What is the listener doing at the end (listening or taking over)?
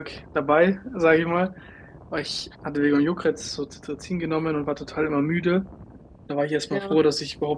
listening